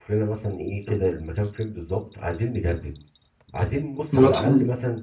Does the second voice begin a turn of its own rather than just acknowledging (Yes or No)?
No